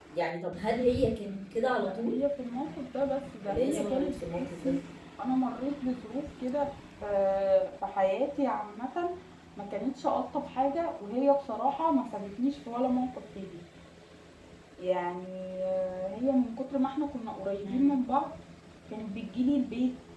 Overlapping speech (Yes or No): Yes